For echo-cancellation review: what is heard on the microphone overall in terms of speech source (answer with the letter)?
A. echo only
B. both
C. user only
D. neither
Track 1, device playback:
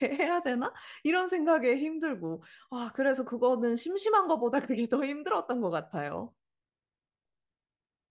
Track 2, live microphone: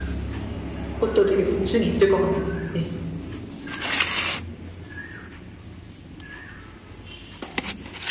C